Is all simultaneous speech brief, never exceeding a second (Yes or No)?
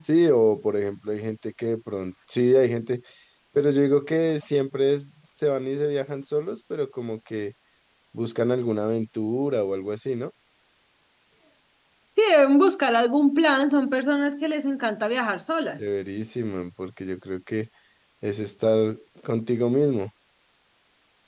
Yes